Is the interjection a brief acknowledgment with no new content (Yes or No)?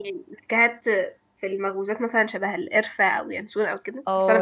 No